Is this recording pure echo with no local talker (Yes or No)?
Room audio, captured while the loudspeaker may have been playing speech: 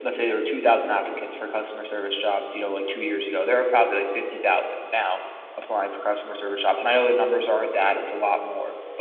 Yes